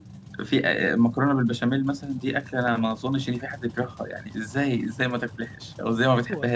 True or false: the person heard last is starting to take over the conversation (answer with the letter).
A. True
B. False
A